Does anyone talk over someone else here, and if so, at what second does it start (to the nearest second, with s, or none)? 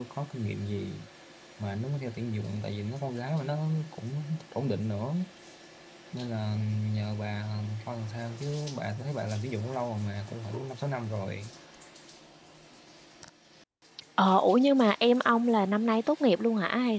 none